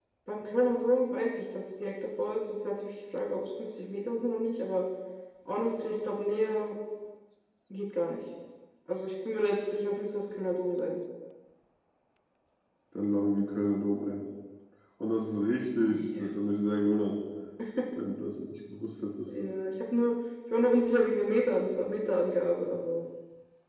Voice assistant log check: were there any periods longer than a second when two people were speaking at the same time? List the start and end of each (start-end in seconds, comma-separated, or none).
none